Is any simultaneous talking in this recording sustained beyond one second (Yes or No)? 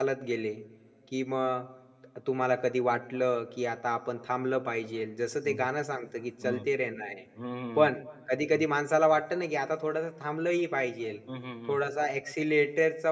No